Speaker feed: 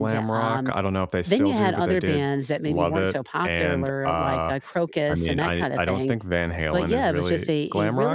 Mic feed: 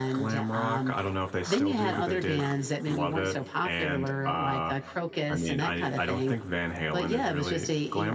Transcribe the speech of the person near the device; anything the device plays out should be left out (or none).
none